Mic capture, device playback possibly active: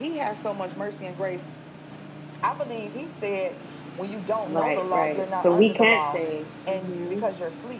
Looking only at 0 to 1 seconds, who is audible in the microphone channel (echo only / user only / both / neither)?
echo only